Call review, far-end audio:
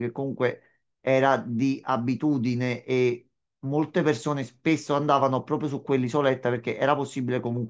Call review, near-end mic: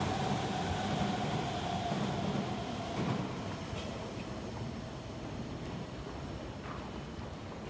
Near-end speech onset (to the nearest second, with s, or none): none